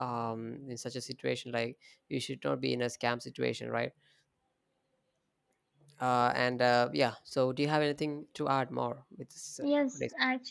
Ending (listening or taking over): taking over